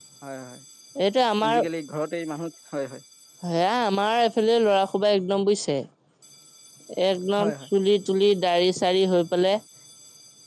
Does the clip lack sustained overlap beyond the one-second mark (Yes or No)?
Yes